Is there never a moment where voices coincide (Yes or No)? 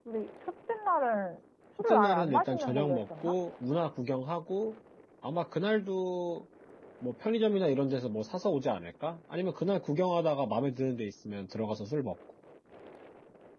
No